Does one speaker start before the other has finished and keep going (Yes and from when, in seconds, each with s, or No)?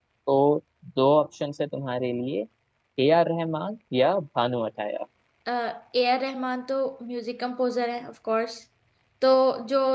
No